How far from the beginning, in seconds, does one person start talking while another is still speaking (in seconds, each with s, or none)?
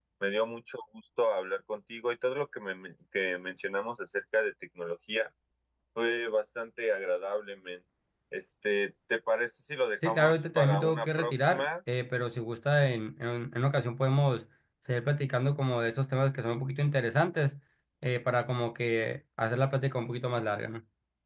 10.0 s